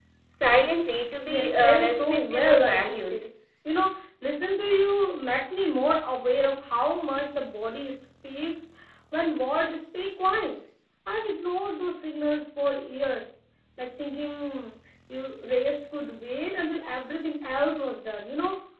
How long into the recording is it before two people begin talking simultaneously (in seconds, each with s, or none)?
1.2 s